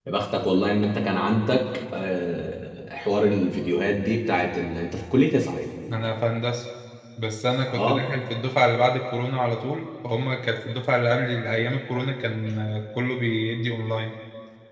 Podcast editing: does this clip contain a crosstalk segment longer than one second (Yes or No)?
No